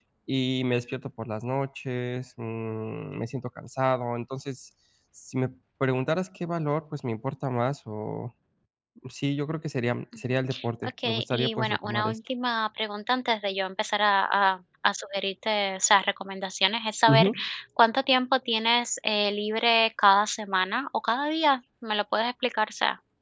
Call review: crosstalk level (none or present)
present